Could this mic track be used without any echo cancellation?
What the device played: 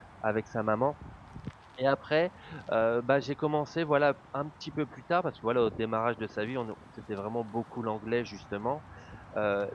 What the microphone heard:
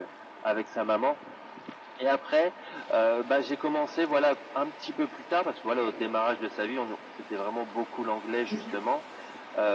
No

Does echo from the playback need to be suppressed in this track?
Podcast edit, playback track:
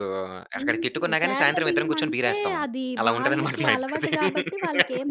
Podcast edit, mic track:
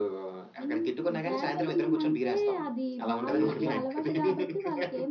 Yes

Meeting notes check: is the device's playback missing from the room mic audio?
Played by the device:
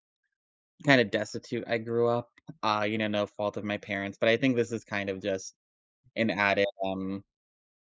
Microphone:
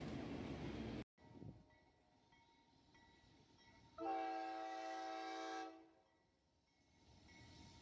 Yes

